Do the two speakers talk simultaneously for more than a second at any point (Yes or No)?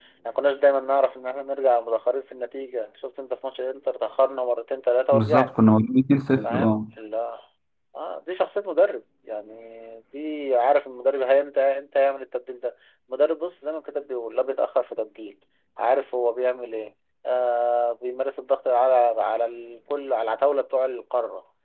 No